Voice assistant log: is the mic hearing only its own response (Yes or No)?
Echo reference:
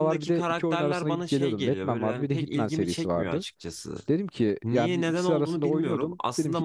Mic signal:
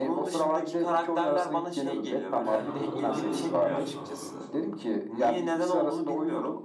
No